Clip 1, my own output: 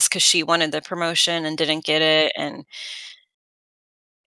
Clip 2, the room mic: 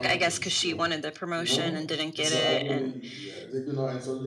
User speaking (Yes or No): Yes